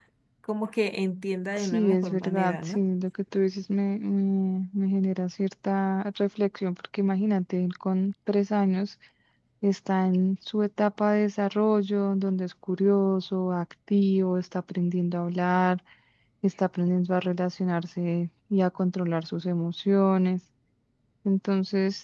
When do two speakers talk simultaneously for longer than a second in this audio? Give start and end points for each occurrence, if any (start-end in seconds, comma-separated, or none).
1.6-2.8